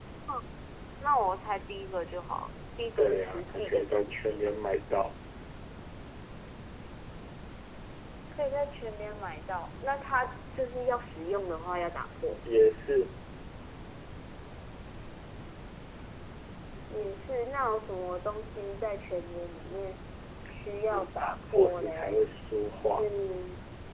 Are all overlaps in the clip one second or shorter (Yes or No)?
No